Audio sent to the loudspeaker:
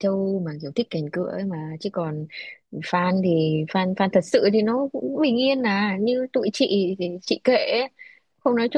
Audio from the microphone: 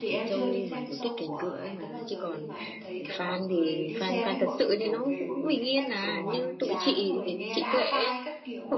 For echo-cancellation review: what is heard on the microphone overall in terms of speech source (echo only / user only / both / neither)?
both